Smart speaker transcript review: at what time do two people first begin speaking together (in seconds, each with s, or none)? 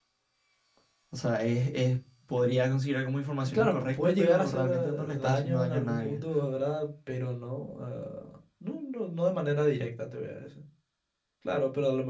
3.5 s